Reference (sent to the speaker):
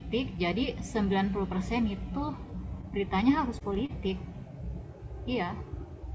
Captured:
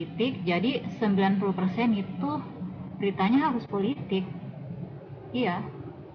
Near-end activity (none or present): none